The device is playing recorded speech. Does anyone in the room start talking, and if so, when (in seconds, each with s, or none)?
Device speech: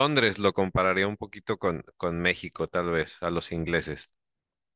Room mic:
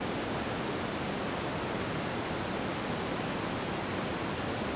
none